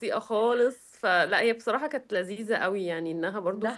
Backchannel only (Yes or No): Yes